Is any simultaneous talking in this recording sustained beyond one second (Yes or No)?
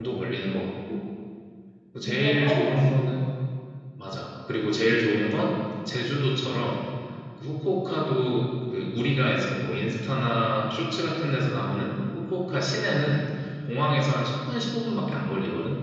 Yes